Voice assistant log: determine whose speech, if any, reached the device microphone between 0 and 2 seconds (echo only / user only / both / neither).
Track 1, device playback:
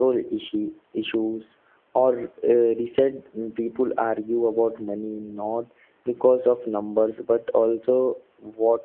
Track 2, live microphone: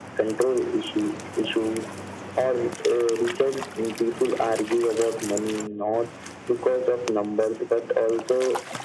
echo only